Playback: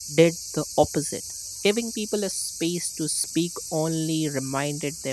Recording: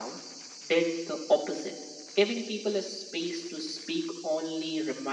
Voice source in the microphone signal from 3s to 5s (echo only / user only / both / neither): echo only